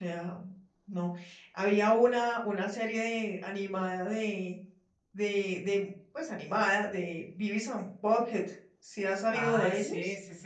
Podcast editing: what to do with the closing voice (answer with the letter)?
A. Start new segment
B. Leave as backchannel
A